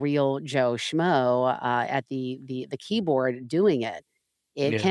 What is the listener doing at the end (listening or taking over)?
listening